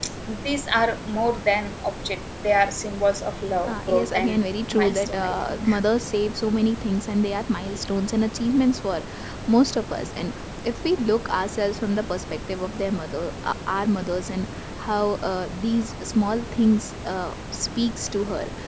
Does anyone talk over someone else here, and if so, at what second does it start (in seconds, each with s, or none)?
3.6 s